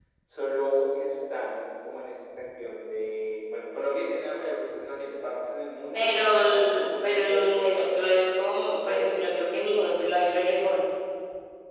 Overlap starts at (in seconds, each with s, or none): 5.9 s